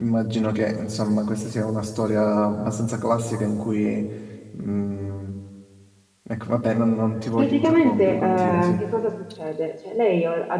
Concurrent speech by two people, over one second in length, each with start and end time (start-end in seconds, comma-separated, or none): 7.4-8.8